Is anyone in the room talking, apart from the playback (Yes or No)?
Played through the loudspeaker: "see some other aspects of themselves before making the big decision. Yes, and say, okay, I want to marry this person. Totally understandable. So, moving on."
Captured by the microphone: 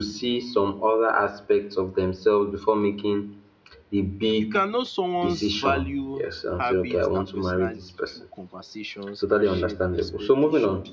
Yes